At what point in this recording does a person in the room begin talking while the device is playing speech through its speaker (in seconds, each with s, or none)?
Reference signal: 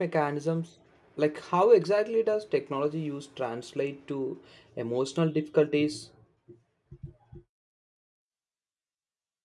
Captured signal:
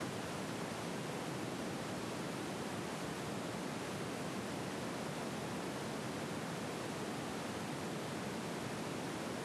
none